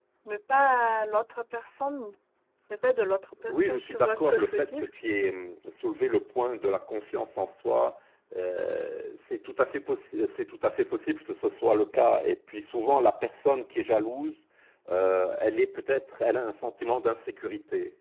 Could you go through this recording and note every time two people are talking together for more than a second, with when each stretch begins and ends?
3.5-4.8

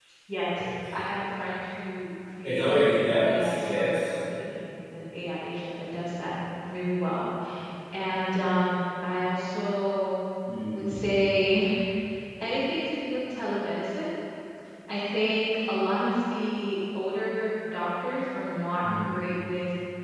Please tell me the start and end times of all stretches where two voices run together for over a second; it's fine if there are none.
2.4-4.2

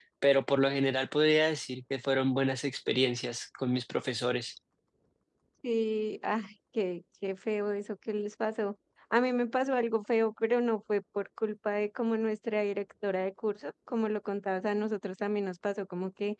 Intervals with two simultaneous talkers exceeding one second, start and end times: none

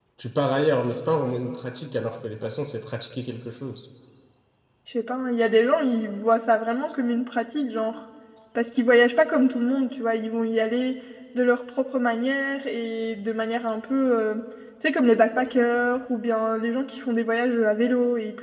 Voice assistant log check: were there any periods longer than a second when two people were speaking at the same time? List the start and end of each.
none

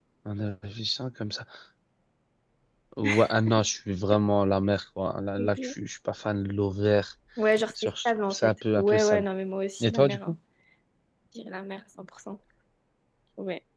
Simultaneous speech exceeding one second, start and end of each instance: 7.8-9.2

